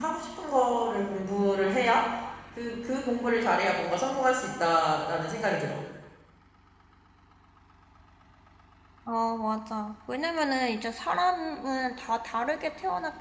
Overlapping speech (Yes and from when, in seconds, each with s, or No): No